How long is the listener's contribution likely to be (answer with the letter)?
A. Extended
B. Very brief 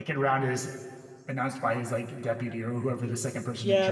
A